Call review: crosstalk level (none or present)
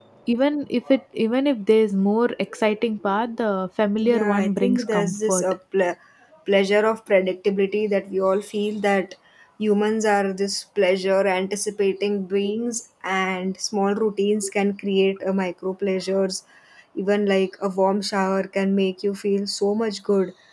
present